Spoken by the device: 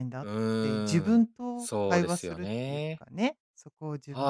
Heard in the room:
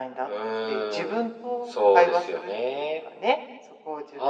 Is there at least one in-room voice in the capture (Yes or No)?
No